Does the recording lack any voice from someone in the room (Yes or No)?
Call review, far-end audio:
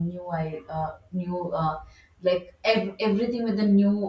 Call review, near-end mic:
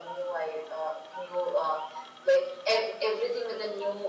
Yes